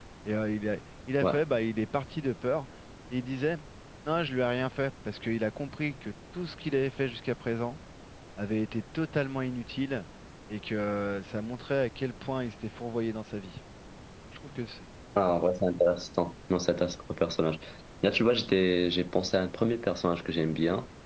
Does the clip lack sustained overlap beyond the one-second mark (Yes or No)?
Yes